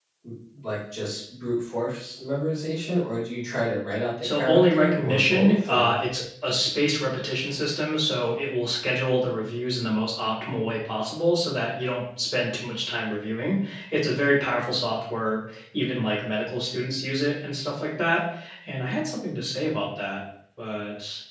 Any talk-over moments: Yes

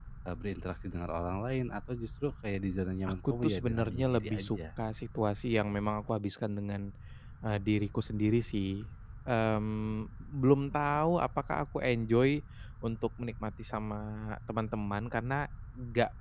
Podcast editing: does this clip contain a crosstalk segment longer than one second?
Yes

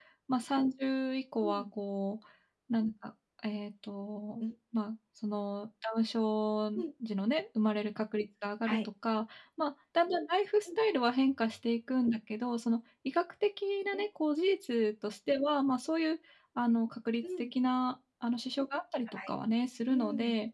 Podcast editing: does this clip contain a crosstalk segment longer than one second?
No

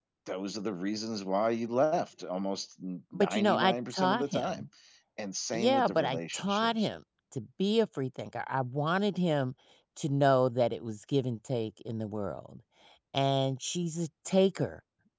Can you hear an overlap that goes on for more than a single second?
Yes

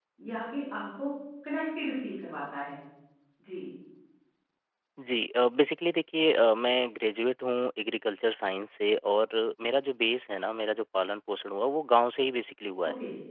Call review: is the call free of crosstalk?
Yes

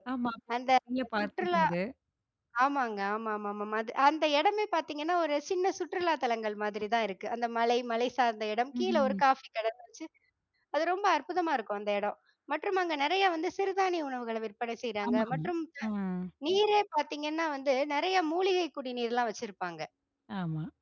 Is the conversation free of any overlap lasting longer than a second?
Yes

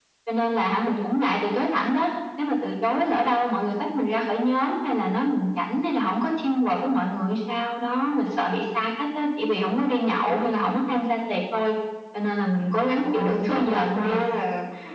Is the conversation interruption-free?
No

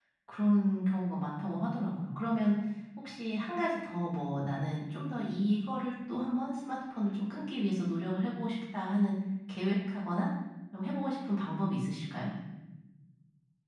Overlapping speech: No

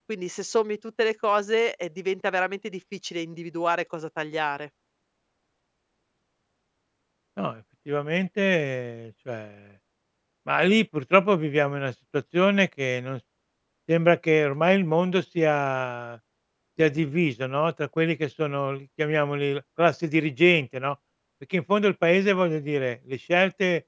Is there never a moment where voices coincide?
Yes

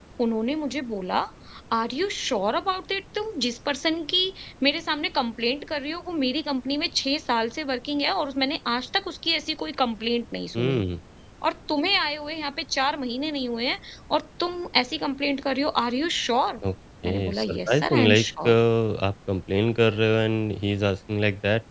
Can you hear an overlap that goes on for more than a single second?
Yes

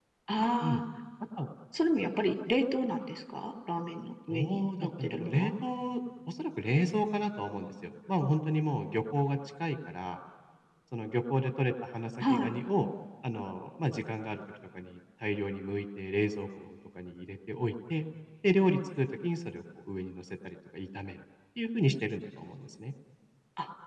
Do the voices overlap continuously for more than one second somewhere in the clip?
Yes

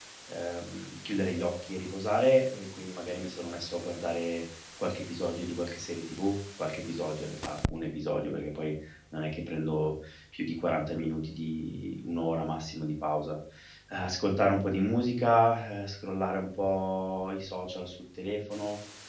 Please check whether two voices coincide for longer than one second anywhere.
No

